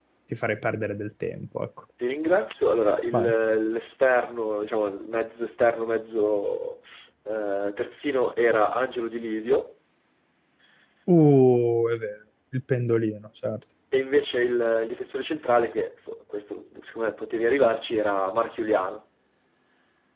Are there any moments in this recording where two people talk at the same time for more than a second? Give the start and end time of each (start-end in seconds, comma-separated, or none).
none